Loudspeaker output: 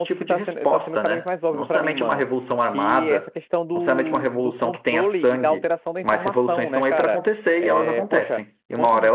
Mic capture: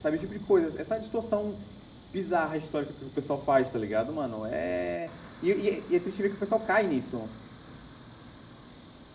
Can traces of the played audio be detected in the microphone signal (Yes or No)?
No